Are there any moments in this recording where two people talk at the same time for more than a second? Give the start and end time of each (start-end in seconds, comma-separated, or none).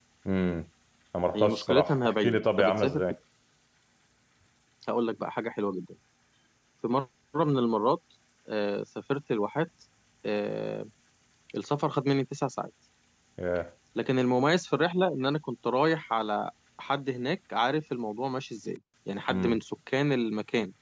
1.4-3.0